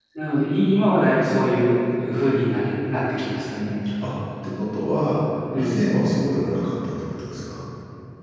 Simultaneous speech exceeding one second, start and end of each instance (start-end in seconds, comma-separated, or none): none